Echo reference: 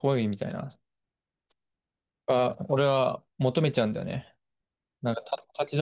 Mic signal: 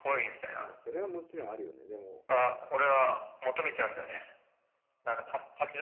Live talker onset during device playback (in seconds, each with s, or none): 0.6 s